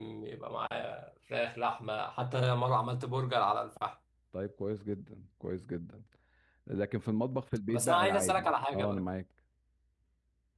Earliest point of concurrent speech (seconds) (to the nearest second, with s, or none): 8 s